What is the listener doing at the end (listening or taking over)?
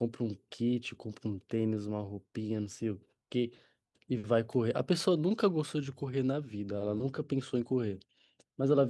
listening